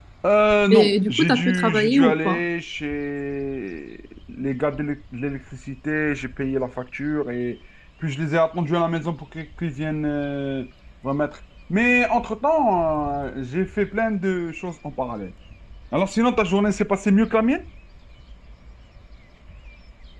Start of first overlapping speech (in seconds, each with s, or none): 0.7 s